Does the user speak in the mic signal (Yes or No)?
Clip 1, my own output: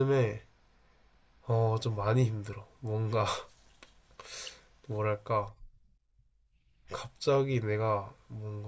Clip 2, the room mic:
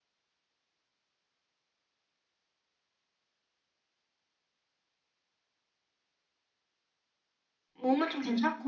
Yes